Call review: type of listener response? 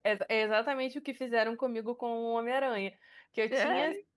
listening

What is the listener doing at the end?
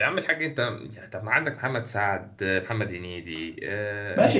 taking over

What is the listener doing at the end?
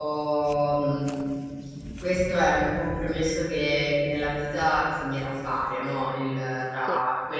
listening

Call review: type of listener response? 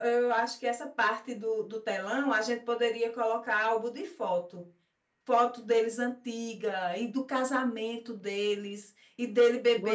listening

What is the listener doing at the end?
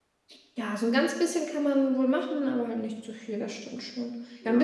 listening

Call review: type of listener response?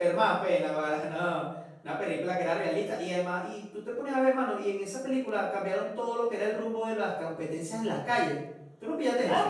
taking over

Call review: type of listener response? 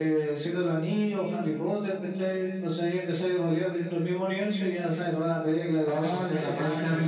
taking over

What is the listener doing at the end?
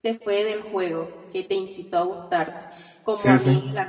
listening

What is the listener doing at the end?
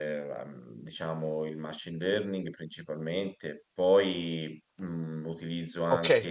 taking over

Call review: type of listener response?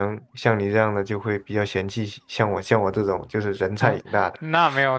taking over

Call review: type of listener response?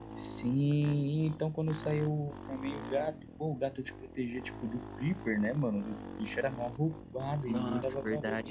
taking over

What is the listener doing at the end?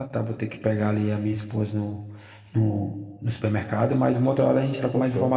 listening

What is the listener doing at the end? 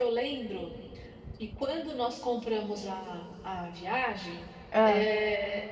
listening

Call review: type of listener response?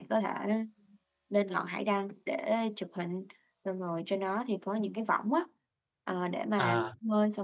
listening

